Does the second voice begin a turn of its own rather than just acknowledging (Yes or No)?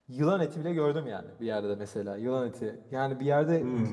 No